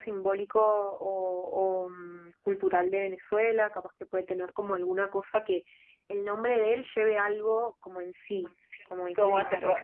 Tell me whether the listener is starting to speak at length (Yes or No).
Yes